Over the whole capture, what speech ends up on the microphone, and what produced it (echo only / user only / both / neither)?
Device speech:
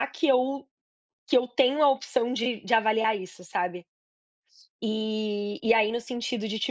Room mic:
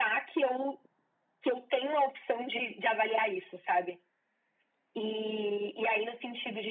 echo only